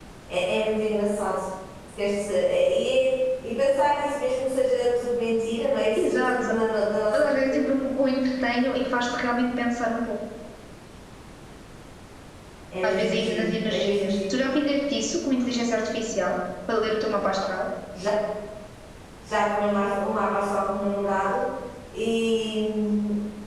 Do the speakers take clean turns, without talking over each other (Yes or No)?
No